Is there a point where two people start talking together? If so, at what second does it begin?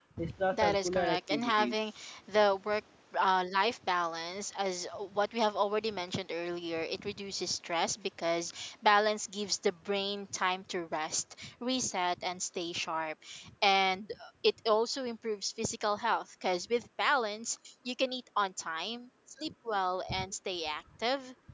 0.5 s

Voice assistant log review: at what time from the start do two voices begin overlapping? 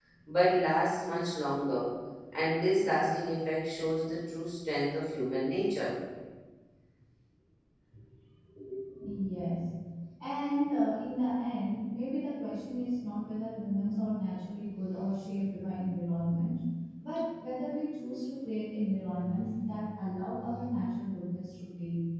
none

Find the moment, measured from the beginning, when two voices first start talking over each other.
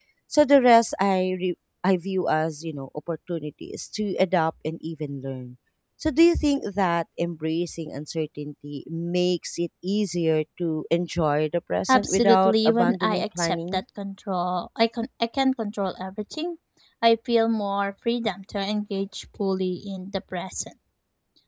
11.9 s

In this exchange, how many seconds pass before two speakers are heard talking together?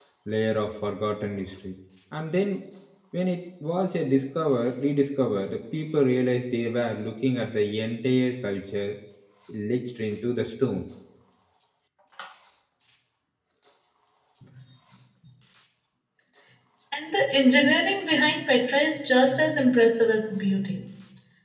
none

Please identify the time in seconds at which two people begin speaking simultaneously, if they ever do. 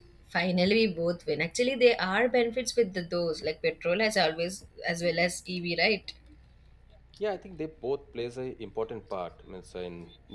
none

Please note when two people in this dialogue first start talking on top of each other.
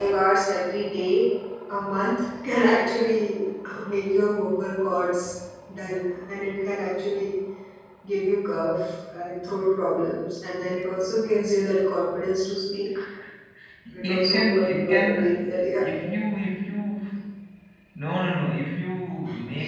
13.9 s

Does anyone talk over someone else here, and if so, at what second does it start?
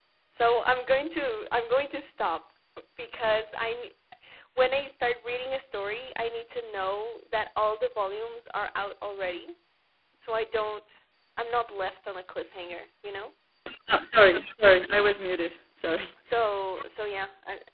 none

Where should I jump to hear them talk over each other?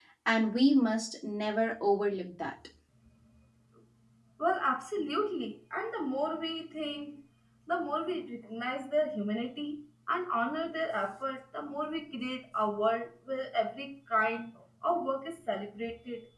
none

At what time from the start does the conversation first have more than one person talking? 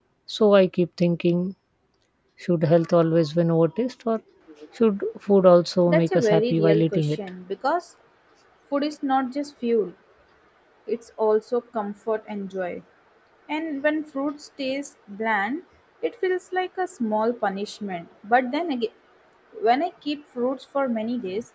5.9 s

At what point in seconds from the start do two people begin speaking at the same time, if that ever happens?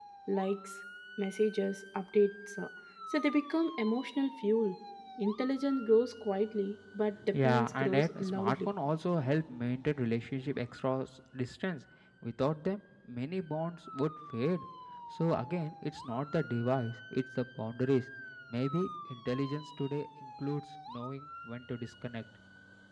7.2 s

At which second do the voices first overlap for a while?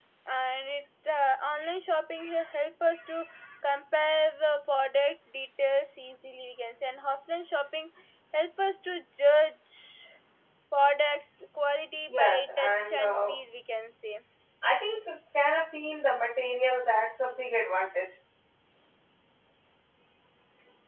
12.1 s

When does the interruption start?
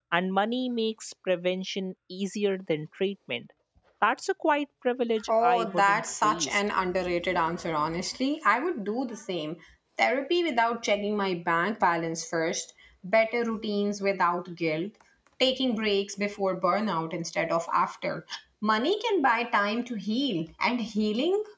5.2 s

